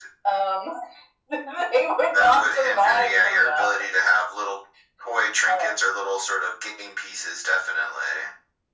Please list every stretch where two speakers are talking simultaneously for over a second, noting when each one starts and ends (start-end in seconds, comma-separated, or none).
2.1-3.7